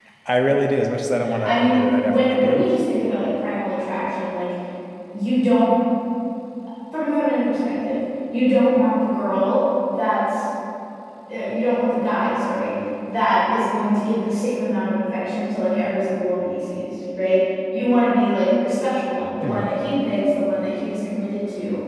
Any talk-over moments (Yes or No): Yes